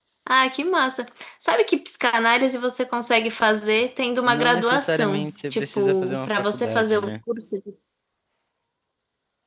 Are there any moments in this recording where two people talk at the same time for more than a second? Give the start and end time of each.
4.2-7.1

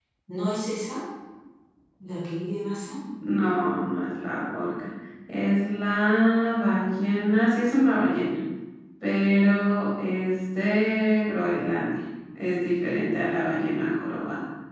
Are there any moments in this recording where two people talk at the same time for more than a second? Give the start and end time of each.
none

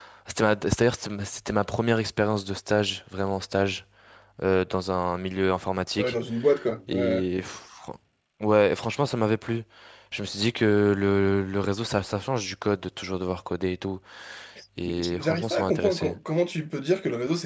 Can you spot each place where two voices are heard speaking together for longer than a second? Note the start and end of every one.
14.8-16.2

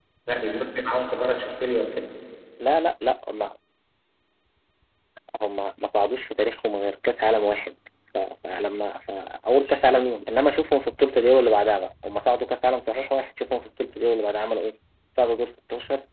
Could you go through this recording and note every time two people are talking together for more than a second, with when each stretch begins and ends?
none

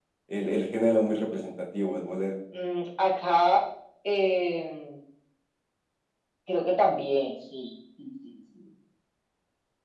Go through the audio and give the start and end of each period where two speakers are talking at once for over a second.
none

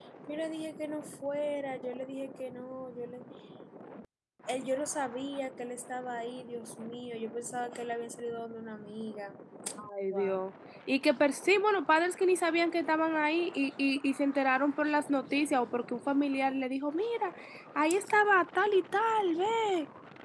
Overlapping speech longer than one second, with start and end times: none

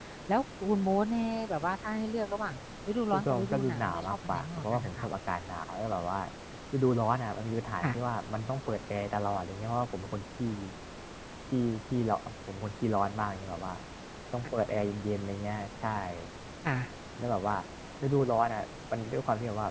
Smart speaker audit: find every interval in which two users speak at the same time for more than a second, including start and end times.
3.1-5.0

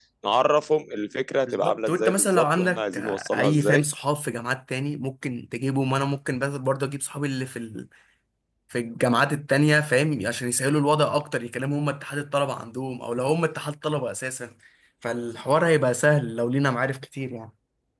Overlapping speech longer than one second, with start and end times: 1.5-3.8

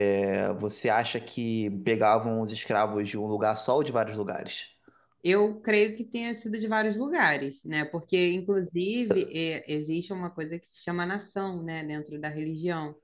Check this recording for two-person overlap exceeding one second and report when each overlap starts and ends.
none

